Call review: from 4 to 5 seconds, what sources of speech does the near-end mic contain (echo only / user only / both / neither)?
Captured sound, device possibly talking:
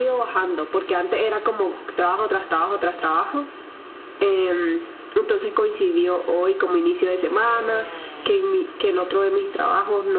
echo only